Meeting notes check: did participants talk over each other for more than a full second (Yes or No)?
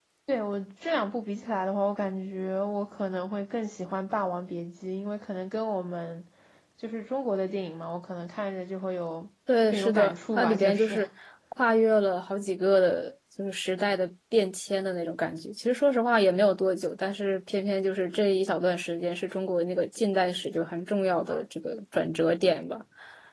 Yes